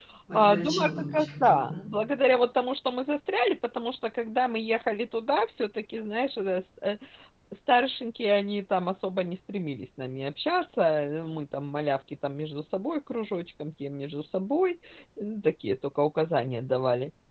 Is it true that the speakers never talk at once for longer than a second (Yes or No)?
No